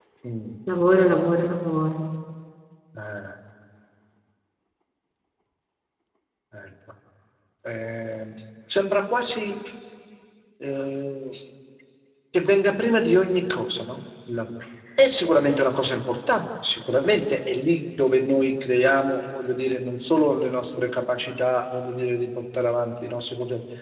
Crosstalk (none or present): none